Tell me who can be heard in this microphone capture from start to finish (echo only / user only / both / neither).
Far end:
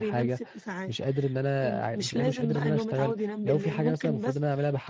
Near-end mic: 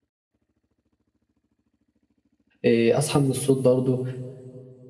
user only